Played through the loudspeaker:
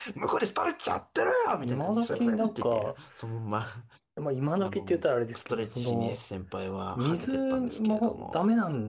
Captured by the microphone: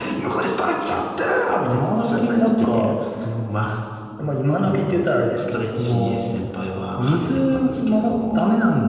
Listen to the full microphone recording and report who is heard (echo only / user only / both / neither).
echo only